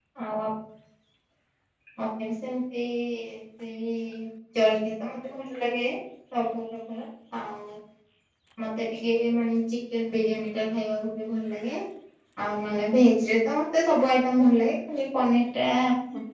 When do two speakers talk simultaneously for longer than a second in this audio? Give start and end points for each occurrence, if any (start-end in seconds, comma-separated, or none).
none